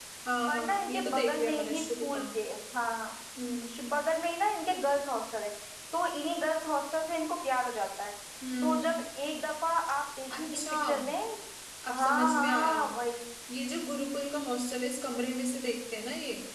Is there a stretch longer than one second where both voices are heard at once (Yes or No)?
Yes